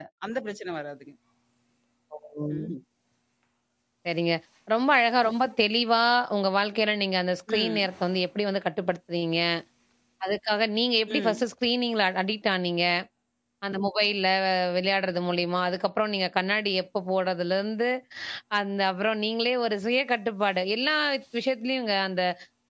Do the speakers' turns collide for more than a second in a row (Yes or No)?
No